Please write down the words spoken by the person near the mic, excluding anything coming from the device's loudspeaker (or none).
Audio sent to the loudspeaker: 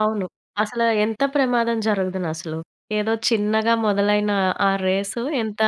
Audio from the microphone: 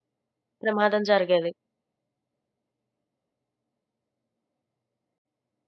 ప్రమాదం జరిగేది.